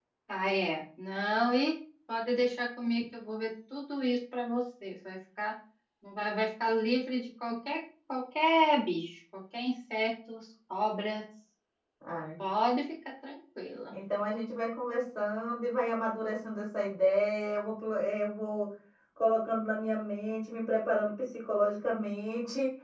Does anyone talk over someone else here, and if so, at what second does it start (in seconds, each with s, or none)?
none